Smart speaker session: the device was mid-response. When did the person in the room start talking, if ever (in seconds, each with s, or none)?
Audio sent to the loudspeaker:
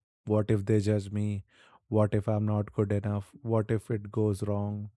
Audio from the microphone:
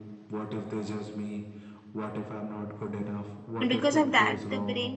3.6 s